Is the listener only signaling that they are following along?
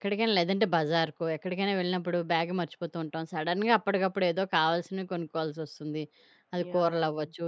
Yes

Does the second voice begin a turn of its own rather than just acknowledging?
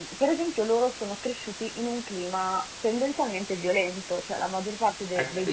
Yes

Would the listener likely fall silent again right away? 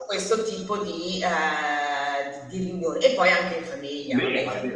No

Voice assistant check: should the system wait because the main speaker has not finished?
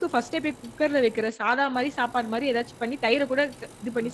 No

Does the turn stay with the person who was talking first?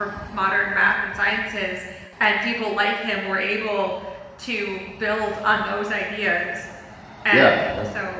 Yes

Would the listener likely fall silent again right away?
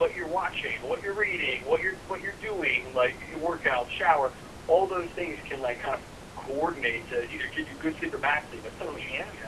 No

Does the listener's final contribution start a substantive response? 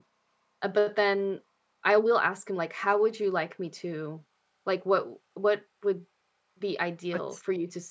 No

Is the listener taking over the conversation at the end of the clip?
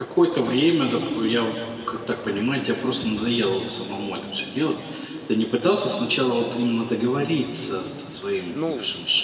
No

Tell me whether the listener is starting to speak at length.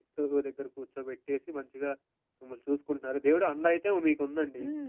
Yes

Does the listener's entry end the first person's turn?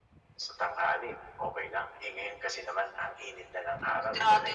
Yes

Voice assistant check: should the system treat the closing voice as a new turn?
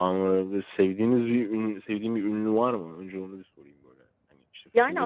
Yes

